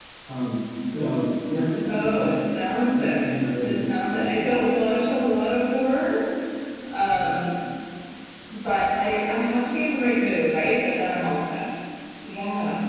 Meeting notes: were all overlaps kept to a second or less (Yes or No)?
No